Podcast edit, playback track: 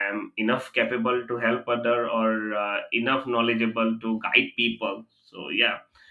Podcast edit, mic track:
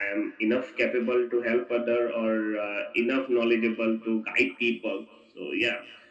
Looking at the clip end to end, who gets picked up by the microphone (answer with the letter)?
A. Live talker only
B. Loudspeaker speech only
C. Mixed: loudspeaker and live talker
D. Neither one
B